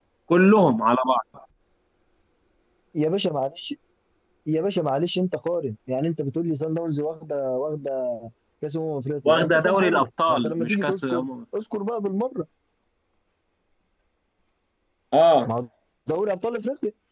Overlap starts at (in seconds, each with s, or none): 9.2 s